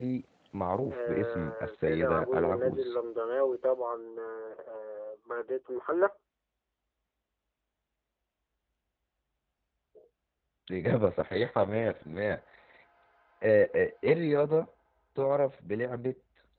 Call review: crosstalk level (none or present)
present